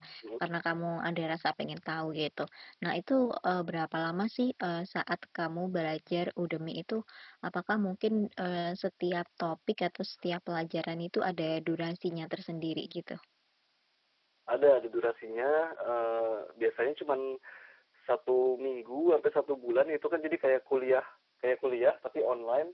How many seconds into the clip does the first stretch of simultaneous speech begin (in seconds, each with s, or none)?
none